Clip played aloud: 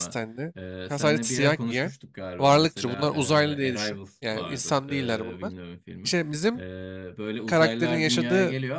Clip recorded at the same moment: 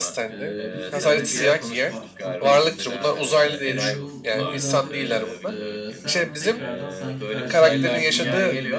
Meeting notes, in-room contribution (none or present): present